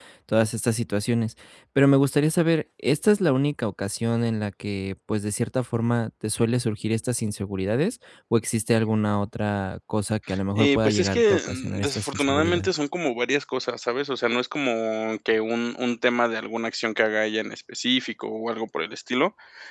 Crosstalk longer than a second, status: present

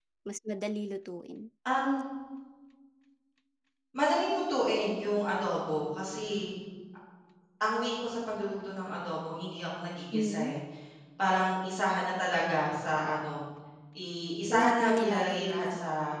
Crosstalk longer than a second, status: present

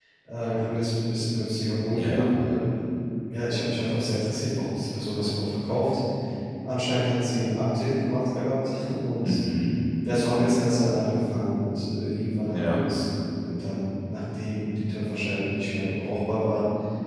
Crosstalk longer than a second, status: none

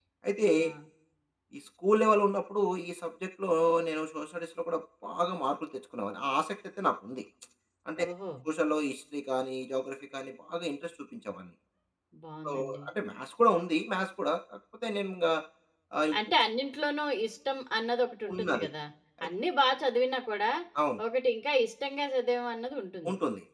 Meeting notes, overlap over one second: none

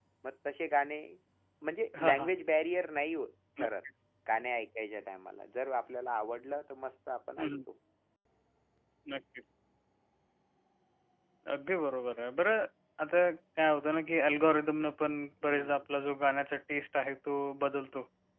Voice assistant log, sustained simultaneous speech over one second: none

